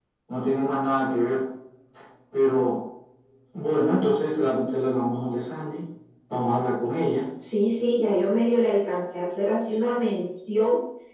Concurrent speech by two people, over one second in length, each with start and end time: none

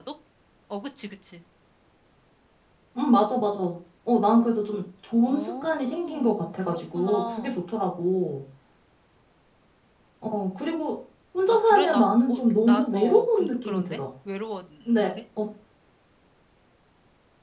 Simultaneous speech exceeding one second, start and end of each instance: 5.2-7.6, 11.5-14.0

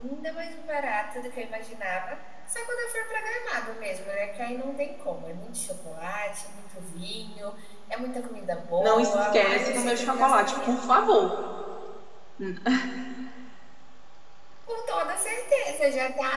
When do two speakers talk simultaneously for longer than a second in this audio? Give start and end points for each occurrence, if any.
8.8-10.7

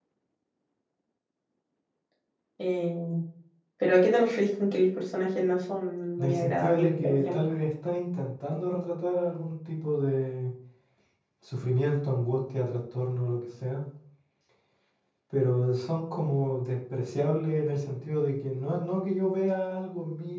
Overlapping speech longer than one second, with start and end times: 6.2-7.4

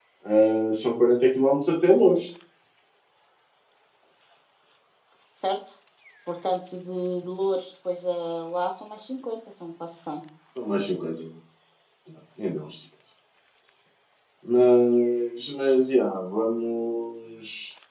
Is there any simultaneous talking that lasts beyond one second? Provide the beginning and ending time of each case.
none

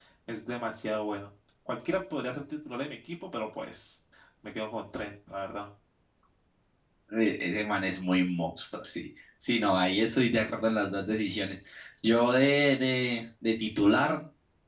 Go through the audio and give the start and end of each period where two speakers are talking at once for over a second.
none

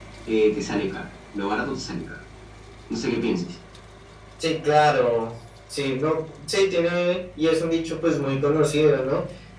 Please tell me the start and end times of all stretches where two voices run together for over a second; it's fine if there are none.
none

